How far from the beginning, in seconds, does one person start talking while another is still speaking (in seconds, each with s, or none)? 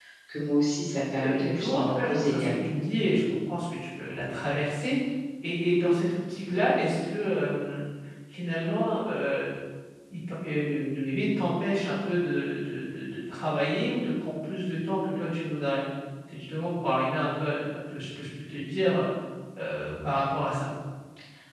1.1 s